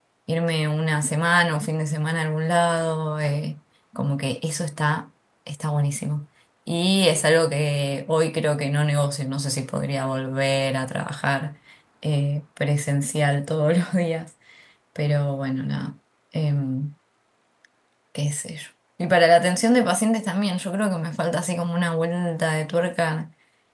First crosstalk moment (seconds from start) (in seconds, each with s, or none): none